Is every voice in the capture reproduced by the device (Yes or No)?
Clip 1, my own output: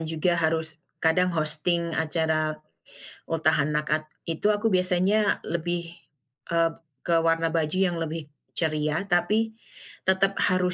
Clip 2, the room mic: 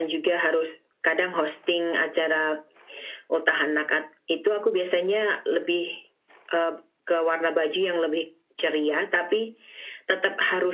Yes